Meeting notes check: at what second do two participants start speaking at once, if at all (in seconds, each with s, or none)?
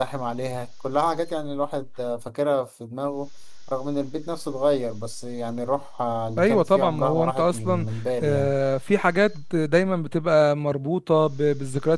6.4 s